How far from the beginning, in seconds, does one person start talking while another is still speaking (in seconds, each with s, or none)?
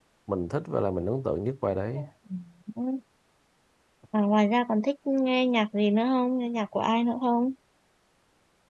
none